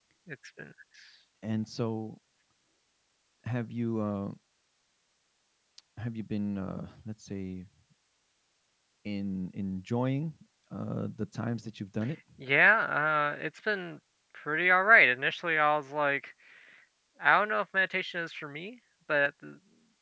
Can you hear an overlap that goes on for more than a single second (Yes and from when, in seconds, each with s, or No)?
No